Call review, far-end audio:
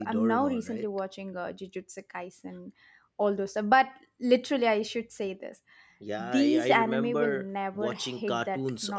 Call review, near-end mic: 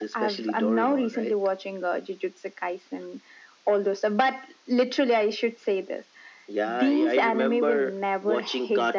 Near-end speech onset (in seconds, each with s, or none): none